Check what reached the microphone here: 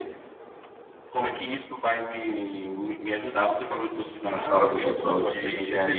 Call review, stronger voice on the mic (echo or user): user